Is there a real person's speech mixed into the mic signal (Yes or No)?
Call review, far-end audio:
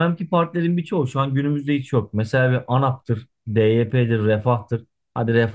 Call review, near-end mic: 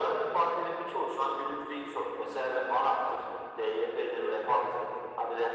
No